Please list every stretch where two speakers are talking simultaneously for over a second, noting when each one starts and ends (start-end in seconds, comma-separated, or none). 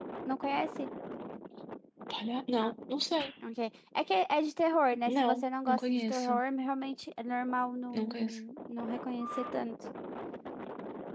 5.1-6.4